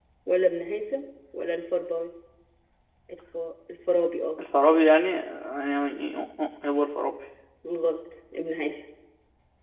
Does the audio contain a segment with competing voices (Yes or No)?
No